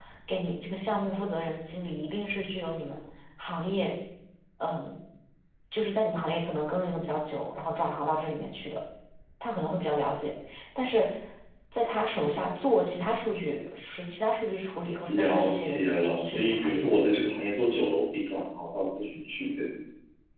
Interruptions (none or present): present